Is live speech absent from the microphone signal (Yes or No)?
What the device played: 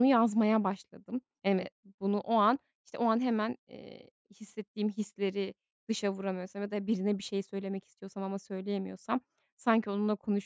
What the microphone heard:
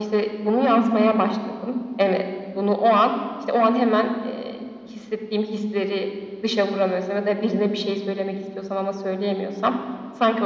Yes